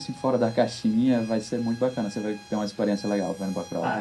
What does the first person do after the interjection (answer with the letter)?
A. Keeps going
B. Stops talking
B